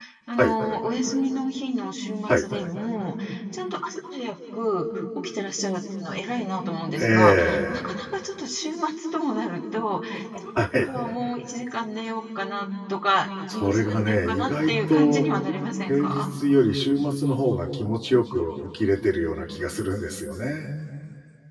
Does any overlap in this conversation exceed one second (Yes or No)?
Yes